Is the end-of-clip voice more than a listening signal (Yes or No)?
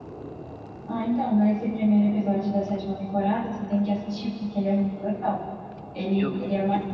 No